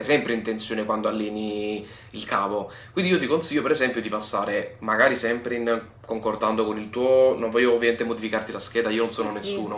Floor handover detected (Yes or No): No